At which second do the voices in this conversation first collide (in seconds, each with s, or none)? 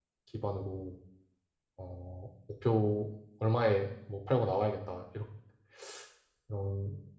none